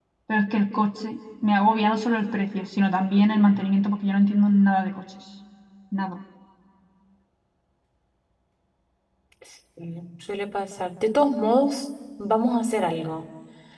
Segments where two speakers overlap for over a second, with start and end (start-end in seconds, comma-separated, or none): none